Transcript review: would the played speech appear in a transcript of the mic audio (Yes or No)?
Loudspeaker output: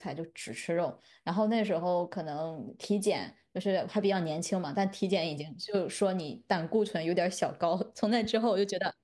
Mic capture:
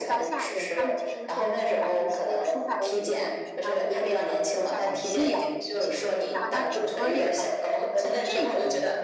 Yes